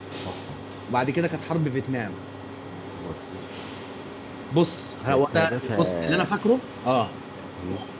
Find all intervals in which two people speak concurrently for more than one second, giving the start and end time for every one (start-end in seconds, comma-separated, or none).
5.0-6.3